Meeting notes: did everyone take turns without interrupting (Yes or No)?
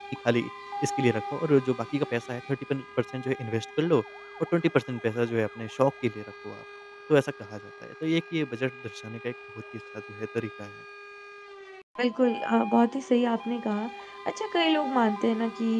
Yes